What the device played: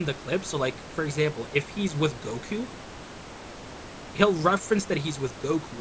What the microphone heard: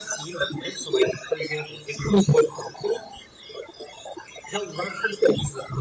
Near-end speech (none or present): none